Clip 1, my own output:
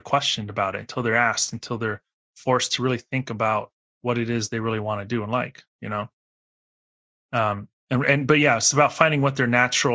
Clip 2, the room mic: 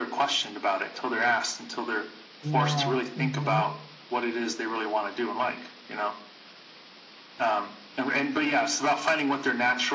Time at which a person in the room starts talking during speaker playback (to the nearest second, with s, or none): 2 s